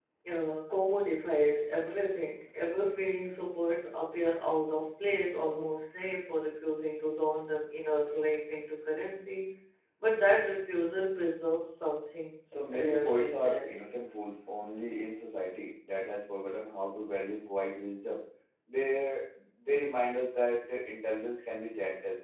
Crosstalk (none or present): present